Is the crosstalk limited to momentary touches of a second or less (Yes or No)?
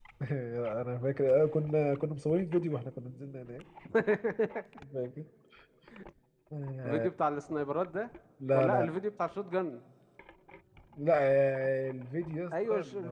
Yes